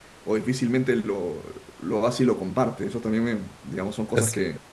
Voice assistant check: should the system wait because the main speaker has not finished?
Yes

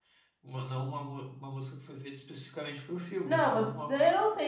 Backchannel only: No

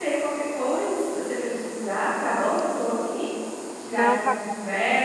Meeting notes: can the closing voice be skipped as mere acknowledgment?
Yes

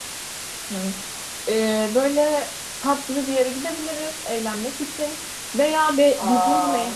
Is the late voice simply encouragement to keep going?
Yes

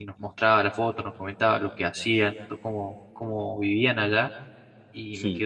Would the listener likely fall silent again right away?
Yes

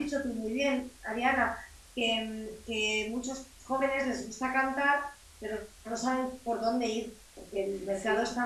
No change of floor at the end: Yes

